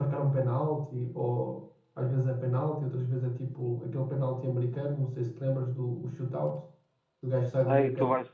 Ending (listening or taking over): taking over